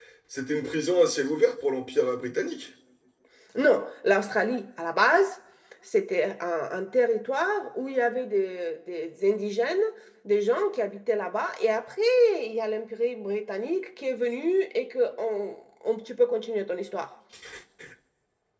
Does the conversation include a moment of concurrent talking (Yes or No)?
No